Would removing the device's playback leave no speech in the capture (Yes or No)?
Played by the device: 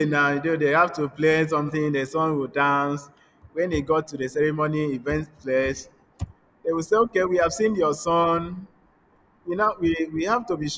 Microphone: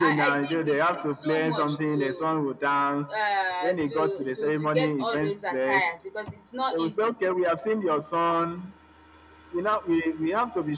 No